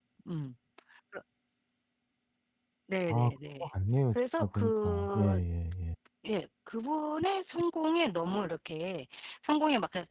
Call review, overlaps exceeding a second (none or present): present